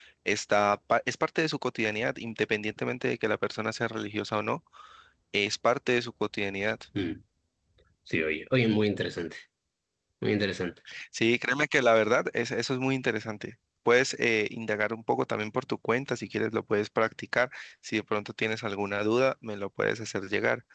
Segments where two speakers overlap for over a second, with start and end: none

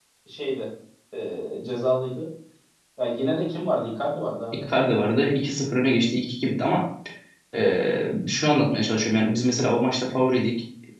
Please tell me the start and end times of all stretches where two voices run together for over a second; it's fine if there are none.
none

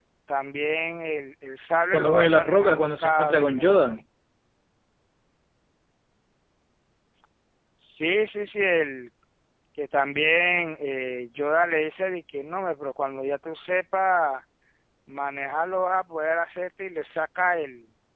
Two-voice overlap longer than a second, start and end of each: 1.9-4.0

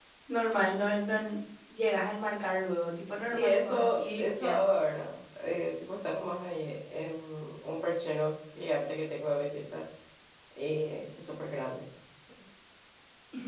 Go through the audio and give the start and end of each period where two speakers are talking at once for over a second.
3.2-4.6

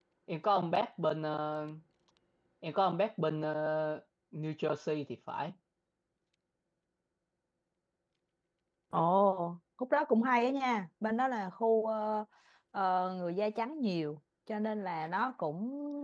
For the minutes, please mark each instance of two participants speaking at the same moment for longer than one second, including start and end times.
none

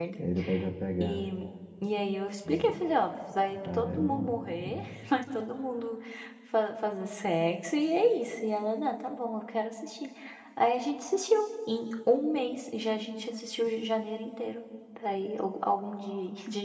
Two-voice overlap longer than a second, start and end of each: 3.6-4.9

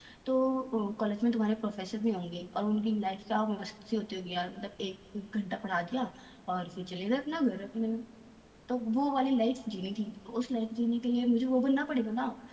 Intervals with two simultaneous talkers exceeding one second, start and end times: none

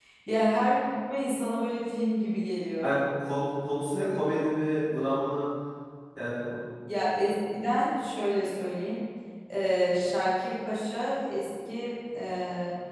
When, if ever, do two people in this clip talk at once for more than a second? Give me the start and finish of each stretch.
none

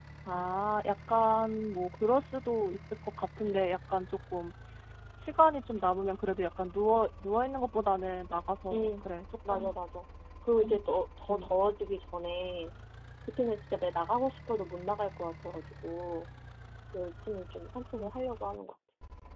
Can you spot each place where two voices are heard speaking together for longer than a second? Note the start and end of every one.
none

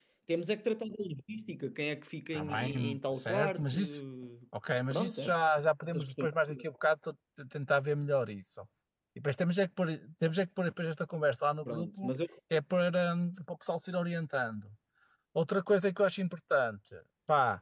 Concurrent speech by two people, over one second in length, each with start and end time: 2.3-3.8

